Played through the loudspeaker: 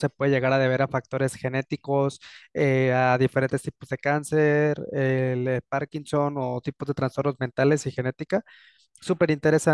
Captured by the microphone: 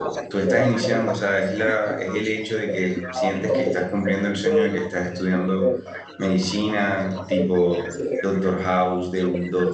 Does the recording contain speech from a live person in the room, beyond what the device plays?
Yes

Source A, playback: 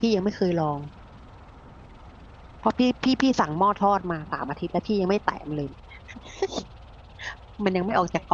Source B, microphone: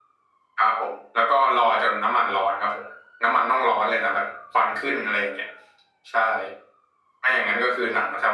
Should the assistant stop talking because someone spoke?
Yes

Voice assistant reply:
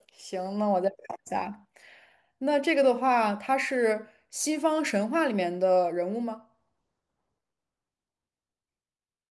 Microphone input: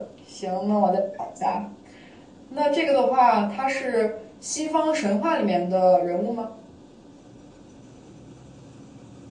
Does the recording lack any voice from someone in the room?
Yes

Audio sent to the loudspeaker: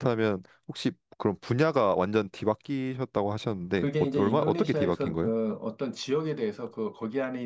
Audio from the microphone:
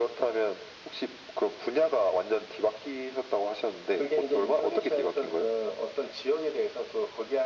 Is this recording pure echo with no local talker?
Yes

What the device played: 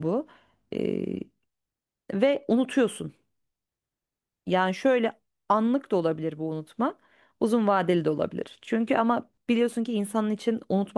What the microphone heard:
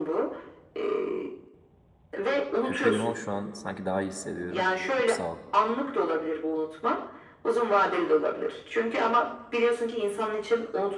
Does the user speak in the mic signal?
Yes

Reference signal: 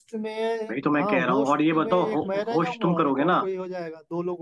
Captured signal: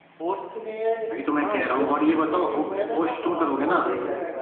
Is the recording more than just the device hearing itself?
Yes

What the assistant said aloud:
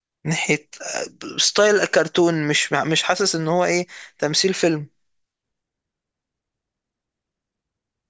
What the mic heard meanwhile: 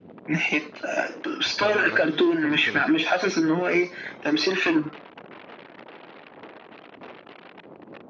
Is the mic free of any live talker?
No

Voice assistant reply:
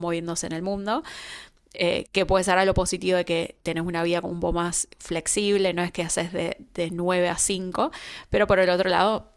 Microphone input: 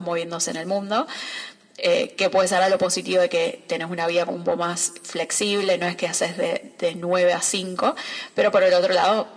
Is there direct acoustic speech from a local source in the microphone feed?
No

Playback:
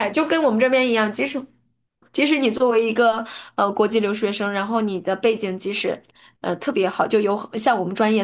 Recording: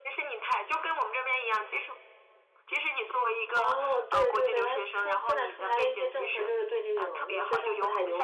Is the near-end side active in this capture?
Yes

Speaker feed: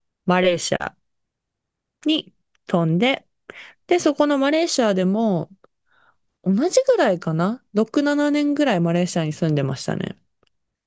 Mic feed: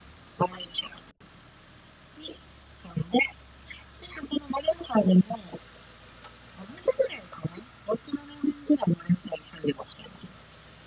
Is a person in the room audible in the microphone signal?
No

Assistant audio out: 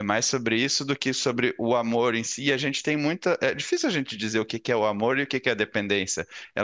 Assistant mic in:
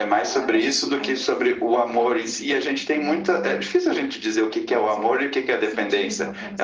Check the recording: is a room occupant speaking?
Yes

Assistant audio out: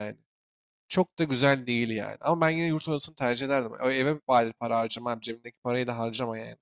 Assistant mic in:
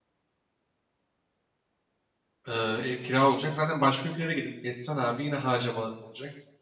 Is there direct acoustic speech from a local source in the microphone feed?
Yes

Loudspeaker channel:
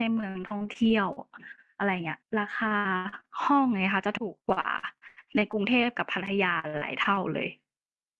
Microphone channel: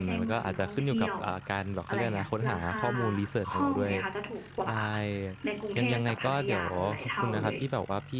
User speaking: Yes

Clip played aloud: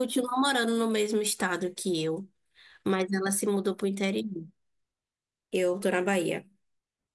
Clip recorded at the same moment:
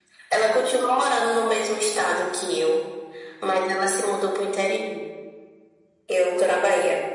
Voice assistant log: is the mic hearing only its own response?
Yes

